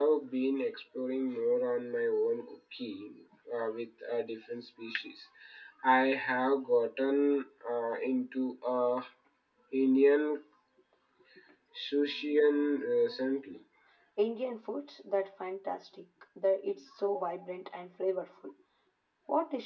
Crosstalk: none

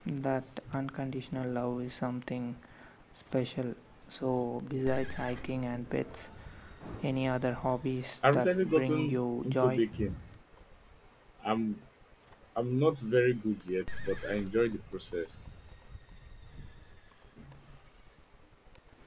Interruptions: present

